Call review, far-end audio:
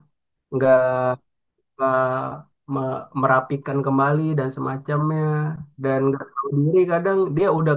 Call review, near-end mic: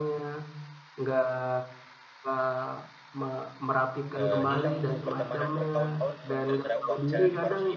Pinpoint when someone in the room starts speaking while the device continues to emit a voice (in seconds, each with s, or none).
4.2 s